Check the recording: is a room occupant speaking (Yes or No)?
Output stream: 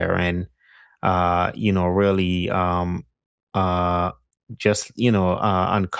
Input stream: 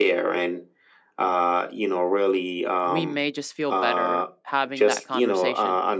Yes